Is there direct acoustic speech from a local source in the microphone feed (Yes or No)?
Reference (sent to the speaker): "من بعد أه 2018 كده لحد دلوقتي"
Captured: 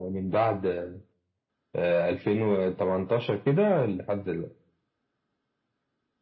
No